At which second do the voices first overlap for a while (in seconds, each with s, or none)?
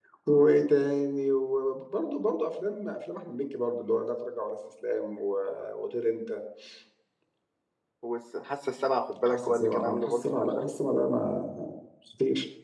9.2 s